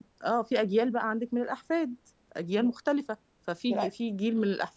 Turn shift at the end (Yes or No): No